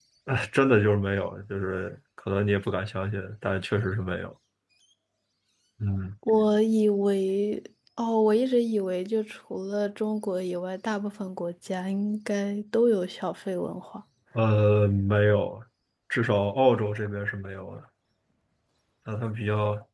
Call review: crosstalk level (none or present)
none